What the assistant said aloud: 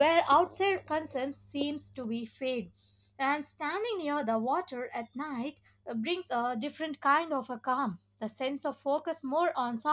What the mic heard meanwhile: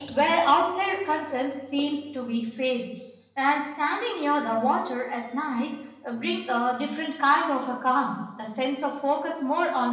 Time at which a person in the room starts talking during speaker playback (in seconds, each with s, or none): none